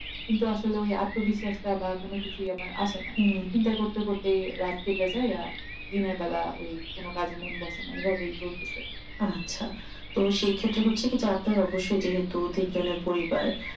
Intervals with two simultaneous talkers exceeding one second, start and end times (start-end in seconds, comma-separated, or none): none